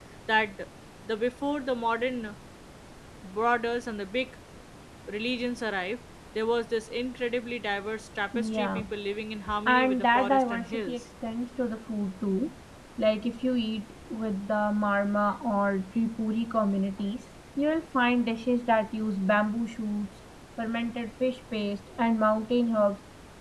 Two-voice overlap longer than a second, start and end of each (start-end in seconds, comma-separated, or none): 9.6-11.0